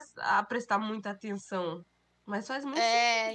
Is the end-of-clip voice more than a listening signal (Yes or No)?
Yes